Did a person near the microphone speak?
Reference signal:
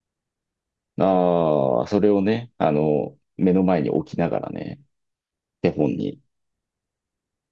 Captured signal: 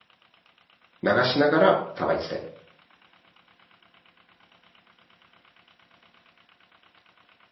Yes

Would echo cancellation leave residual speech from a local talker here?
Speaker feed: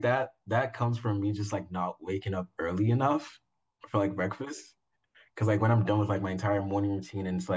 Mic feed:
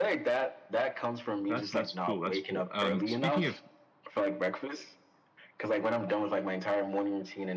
Yes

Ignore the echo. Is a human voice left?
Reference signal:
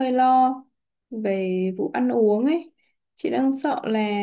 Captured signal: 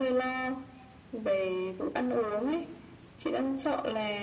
No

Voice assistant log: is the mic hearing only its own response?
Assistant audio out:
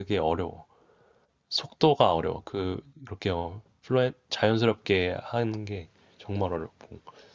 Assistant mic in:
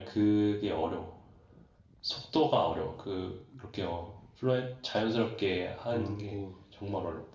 No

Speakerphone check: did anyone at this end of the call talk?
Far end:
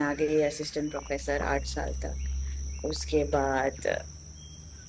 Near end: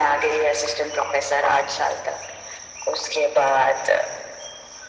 No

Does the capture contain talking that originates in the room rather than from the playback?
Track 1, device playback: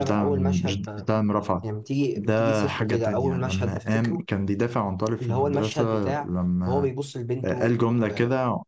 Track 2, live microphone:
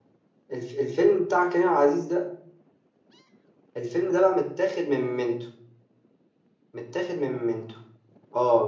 Yes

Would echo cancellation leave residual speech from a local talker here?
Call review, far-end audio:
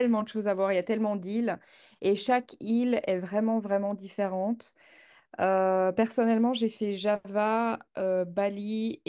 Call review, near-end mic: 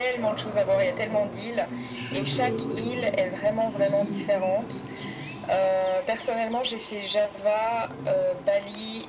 Yes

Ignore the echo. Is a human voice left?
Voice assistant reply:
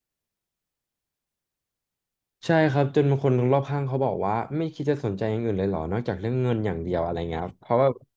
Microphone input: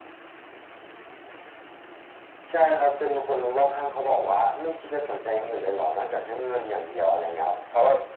No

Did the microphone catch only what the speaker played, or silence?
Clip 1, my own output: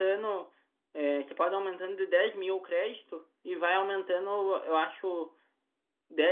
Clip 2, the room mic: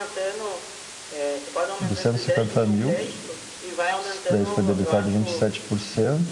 No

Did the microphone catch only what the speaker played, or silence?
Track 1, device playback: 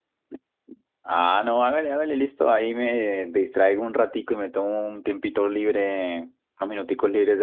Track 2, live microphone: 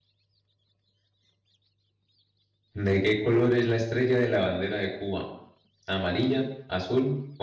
No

